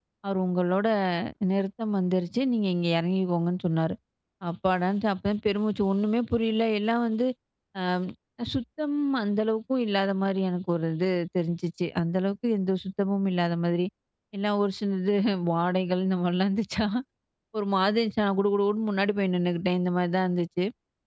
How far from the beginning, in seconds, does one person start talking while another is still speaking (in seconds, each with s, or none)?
none